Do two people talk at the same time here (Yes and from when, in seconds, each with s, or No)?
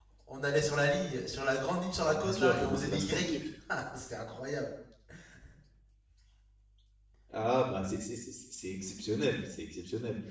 Yes, from 2.0 s